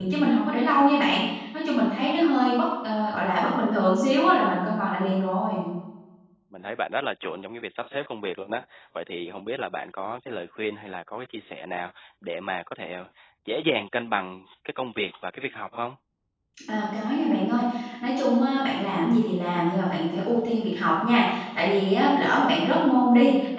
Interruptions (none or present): none